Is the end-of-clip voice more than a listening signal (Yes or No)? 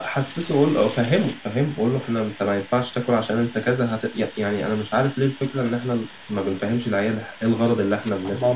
Yes